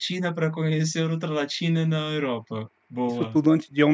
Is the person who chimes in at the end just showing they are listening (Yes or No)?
No